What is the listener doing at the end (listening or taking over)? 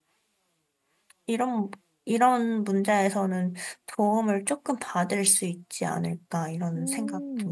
taking over